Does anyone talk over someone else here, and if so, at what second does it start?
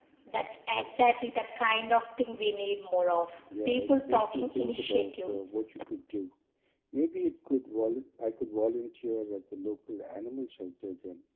3.5 s

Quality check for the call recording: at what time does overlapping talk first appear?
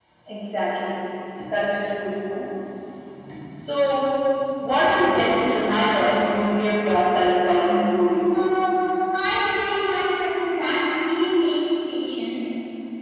none

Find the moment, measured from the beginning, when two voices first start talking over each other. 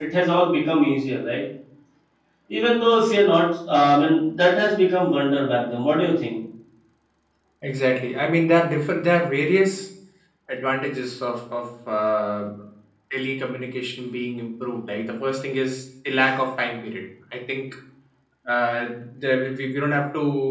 none

